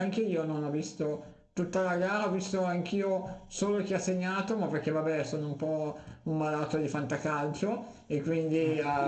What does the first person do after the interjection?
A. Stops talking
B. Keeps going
B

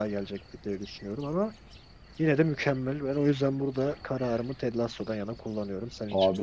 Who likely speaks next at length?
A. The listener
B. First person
A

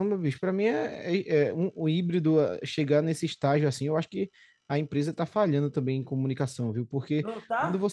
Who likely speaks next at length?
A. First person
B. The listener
A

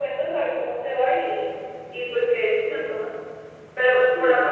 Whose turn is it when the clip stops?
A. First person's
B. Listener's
A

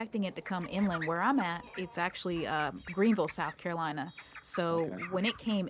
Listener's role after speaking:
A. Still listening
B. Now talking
A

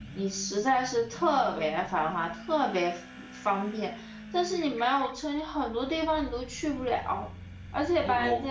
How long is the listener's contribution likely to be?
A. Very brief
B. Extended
A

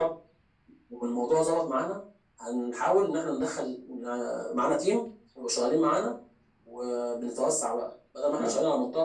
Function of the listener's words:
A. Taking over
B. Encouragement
B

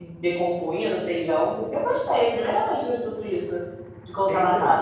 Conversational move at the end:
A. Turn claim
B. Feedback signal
A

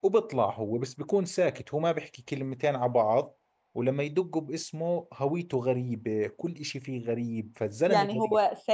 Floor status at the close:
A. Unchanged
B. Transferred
B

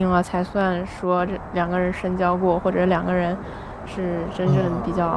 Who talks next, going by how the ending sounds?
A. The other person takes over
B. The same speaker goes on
A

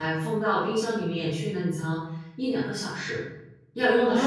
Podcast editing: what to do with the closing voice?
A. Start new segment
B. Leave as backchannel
A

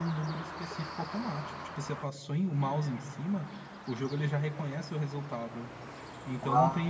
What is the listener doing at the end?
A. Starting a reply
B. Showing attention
B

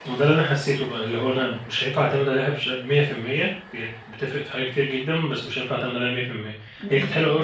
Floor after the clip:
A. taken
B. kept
B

